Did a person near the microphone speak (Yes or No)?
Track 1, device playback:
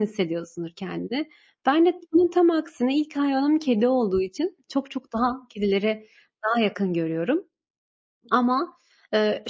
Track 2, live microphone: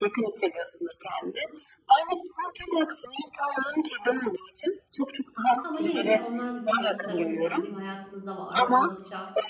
Yes